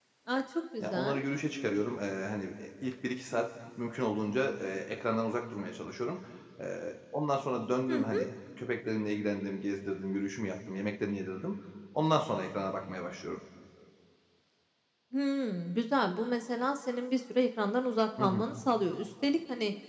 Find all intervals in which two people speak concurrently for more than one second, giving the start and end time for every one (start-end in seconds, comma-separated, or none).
none